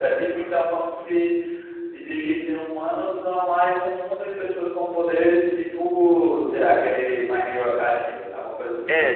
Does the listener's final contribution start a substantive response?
Yes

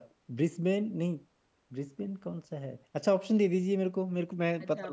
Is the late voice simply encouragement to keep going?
No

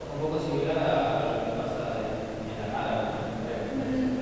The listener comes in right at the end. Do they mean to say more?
Yes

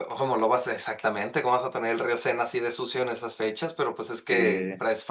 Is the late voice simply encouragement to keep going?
Yes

